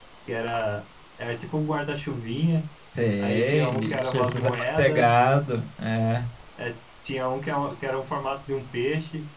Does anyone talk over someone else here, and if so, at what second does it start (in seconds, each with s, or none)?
3.2 s